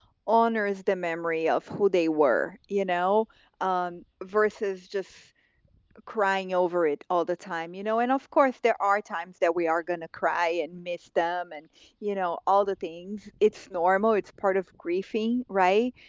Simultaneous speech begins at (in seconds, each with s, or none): none